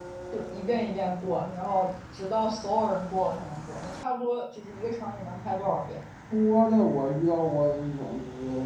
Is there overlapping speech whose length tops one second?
No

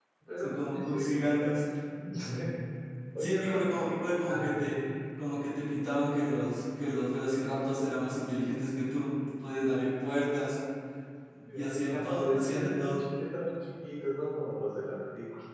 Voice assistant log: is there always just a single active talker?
No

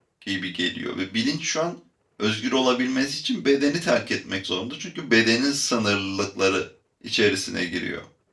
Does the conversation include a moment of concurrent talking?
No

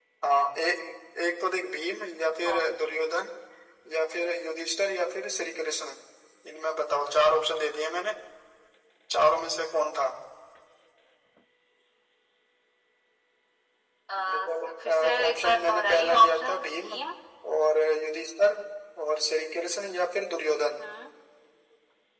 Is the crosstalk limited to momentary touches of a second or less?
No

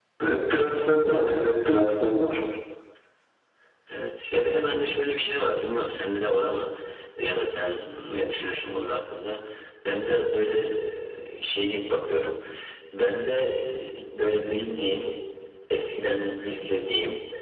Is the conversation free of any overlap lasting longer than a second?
Yes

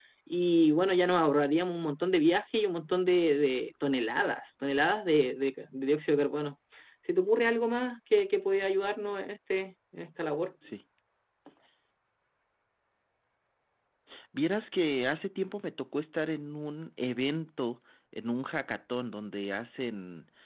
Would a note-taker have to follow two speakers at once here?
No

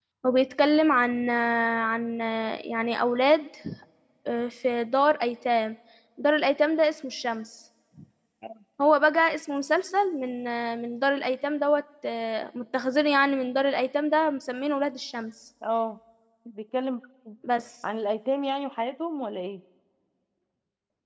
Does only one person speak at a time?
Yes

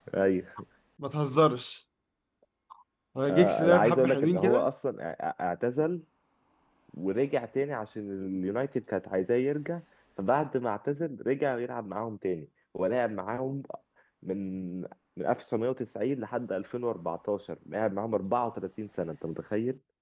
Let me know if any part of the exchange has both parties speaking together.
Yes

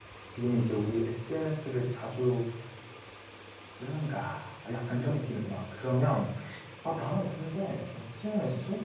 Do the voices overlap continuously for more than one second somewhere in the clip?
No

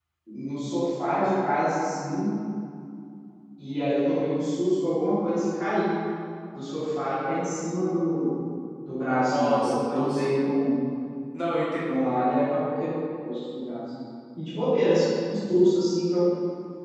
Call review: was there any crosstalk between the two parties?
Yes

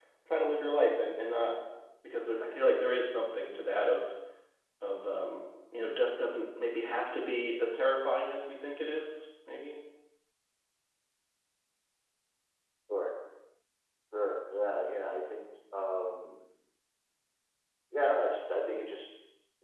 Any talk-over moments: No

